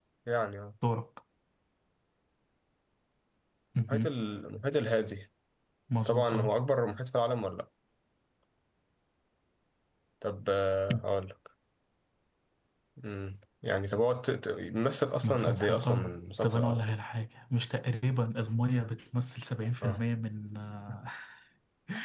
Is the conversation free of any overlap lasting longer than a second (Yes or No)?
No